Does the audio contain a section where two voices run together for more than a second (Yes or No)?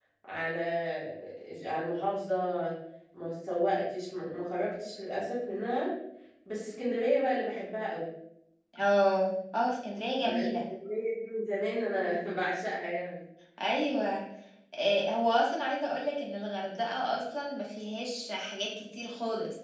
No